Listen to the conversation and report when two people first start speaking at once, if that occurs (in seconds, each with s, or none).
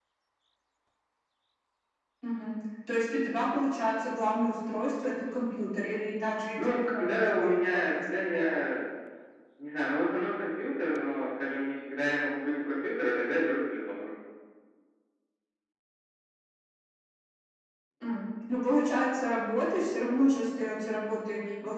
6.6 s